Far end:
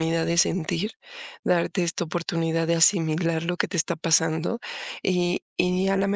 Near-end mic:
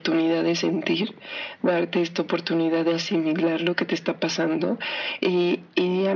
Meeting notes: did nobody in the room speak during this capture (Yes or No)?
Yes